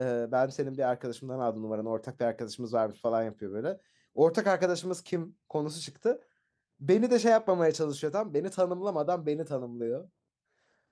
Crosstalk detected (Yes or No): No